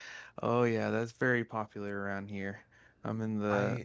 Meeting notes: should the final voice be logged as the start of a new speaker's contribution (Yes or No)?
No